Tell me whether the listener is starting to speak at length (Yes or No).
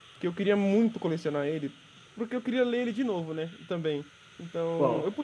No